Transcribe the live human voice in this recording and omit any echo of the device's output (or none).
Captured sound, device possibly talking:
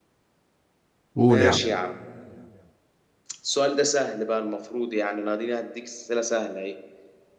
قول يا عم